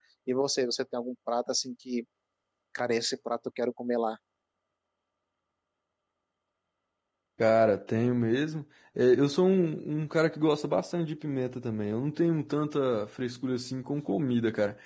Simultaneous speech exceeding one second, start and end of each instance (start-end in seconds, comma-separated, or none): none